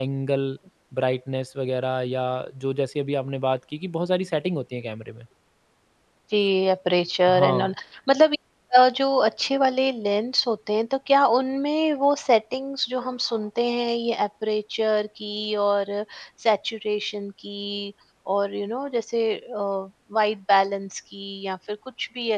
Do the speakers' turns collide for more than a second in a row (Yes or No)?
No